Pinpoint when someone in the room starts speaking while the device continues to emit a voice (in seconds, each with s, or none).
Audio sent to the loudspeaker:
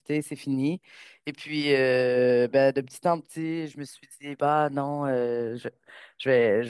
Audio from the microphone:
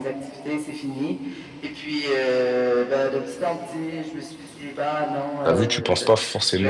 5.4 s